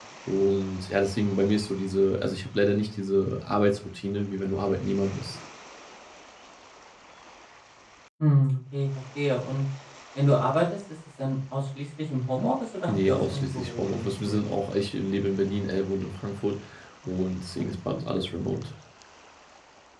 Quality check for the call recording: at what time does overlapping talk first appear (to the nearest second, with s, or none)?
13 s